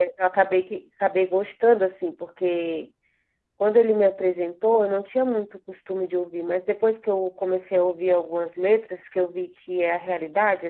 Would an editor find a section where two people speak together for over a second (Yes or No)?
No